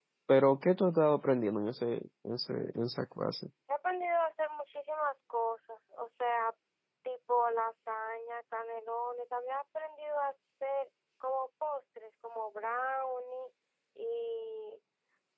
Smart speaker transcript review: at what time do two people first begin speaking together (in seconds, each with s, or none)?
none